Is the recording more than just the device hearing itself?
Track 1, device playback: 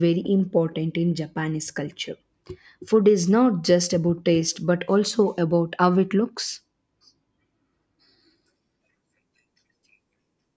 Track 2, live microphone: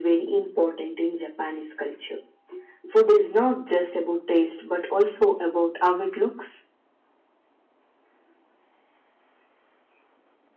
No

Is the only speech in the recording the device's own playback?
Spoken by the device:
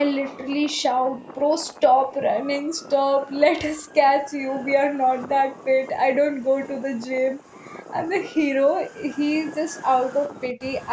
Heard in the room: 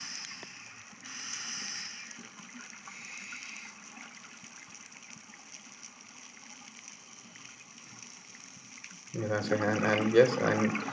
No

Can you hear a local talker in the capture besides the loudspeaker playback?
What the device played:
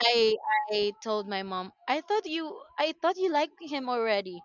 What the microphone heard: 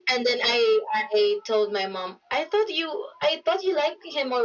No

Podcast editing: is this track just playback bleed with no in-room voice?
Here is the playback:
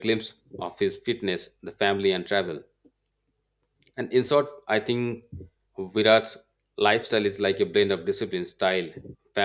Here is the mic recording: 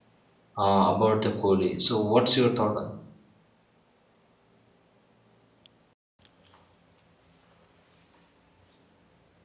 No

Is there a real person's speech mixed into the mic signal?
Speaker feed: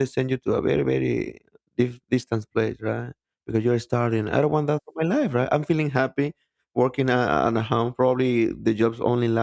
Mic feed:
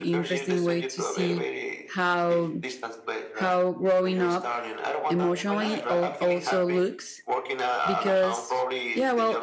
Yes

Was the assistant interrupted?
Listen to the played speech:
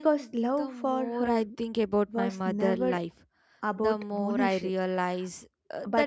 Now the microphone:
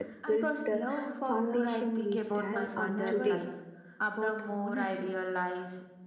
Yes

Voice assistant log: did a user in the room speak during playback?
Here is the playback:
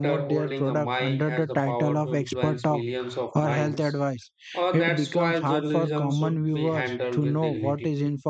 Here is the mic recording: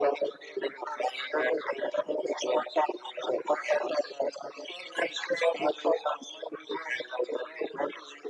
No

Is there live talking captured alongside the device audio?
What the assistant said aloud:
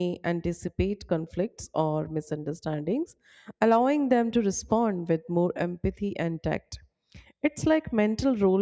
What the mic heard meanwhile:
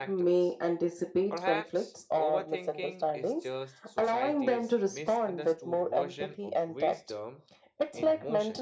Yes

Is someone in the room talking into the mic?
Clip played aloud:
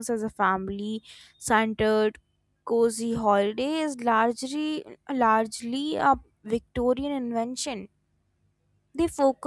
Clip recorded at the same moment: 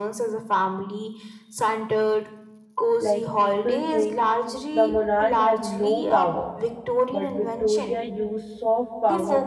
Yes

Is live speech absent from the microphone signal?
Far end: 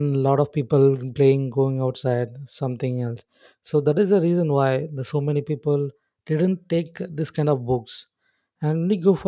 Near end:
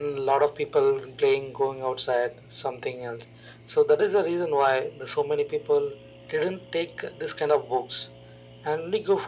Yes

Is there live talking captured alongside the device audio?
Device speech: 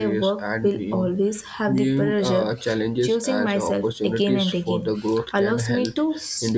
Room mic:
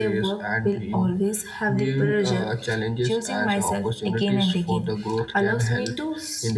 No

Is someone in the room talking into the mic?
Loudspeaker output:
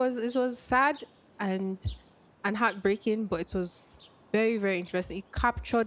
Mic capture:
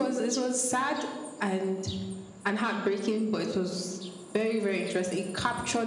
No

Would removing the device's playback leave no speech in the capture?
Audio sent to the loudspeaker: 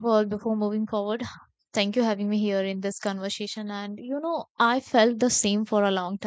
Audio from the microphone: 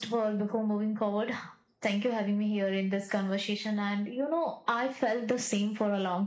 Yes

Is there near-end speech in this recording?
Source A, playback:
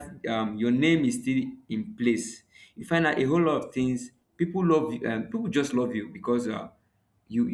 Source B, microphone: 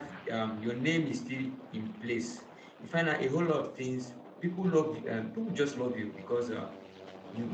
No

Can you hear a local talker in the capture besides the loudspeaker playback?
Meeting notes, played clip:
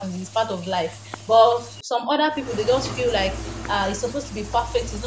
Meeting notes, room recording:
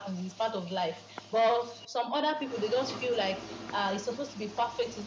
No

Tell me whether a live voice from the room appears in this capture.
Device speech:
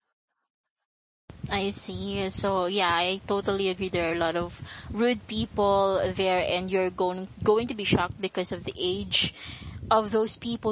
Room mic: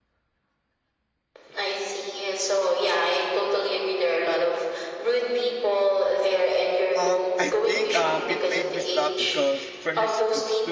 Yes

